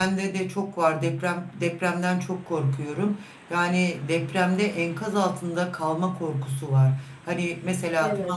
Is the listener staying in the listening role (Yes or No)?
Yes